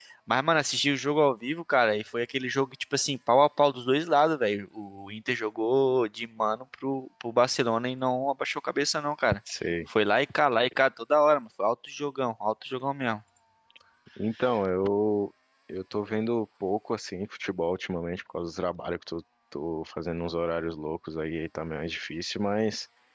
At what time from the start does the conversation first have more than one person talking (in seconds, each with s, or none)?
none